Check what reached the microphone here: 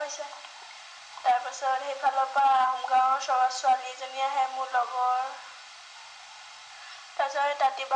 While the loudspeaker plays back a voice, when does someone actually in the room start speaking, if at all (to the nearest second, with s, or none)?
none